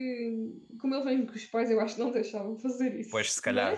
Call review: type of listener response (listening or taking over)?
taking over